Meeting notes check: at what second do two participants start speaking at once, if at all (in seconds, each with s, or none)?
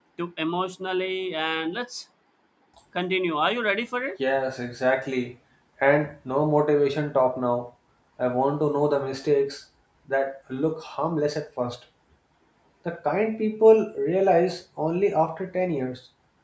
none